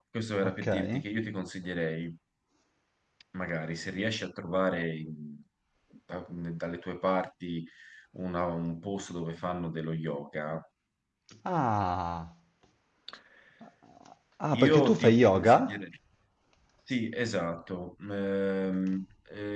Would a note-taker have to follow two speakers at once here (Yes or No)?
Yes